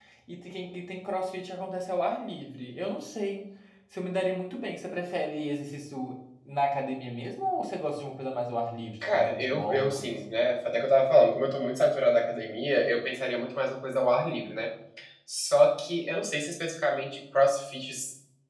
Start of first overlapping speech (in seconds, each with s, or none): 9.0 s